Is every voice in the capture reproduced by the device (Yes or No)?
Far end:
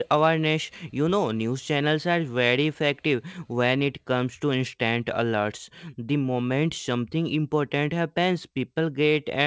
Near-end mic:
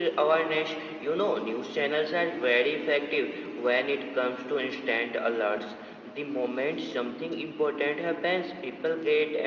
Yes